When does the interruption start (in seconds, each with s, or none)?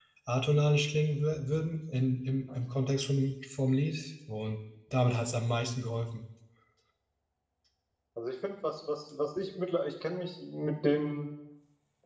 none